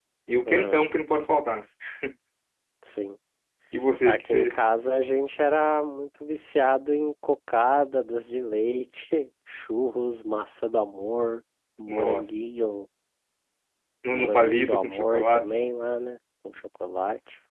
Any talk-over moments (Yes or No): Yes